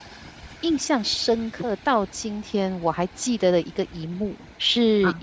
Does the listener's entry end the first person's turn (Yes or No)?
No